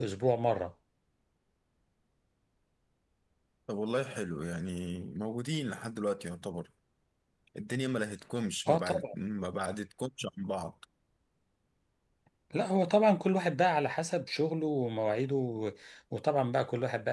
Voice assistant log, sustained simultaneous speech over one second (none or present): none